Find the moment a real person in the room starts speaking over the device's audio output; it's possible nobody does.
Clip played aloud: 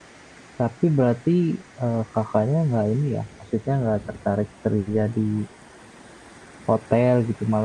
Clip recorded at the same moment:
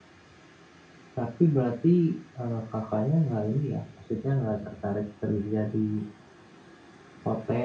none

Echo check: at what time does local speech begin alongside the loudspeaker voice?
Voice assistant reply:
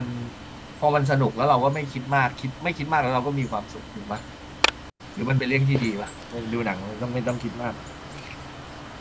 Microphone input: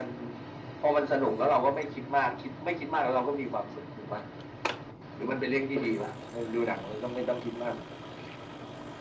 none

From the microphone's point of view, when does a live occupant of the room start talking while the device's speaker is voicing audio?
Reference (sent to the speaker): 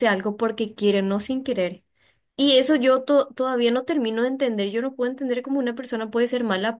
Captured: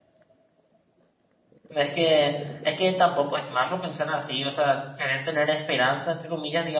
1.7 s

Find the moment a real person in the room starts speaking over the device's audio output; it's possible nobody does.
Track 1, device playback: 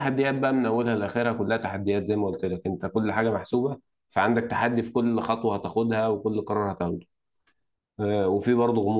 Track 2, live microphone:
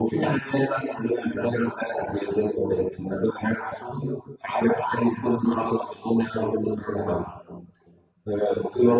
none

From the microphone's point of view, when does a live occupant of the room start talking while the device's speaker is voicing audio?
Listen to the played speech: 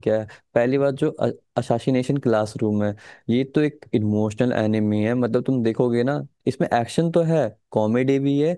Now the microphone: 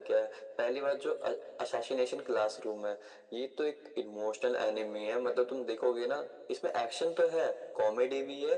none

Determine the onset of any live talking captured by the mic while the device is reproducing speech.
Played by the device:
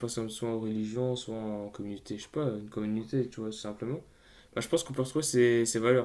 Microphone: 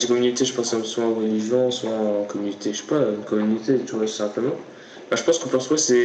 none

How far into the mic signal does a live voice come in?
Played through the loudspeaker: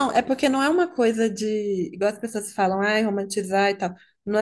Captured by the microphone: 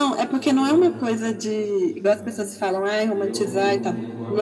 0.3 s

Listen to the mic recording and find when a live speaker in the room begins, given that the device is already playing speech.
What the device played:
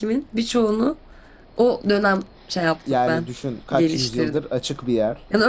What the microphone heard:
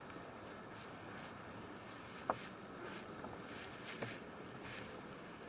none

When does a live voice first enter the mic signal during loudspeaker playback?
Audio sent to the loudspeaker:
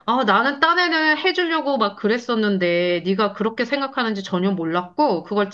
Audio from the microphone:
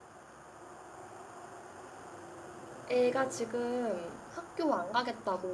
2.9 s

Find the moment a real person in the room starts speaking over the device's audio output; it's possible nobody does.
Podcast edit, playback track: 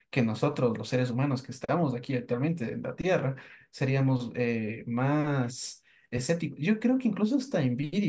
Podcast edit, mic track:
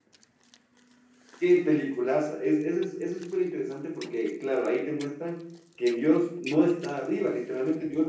1.4 s

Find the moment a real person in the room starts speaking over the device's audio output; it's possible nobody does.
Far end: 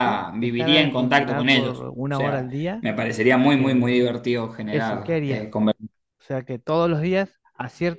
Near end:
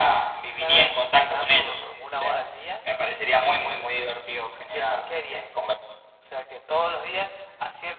none

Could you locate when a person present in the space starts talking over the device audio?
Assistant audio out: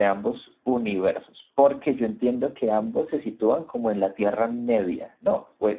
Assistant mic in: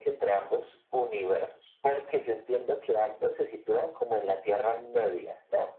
none

